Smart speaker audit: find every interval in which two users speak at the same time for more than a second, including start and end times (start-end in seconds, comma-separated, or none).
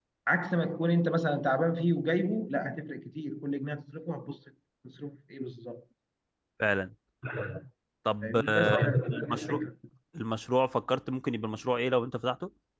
8.2-9.6